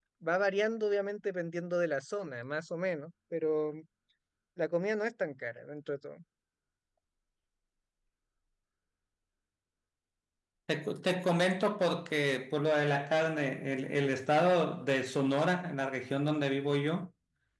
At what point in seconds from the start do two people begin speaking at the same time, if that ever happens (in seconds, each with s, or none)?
none